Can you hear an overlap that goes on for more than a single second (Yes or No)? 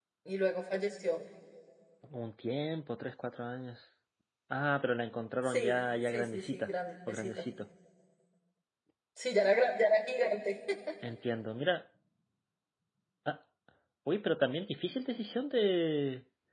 Yes